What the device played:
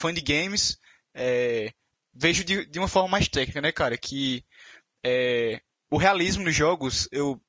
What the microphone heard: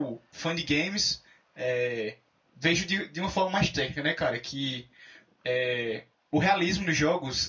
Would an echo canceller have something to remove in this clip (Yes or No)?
Yes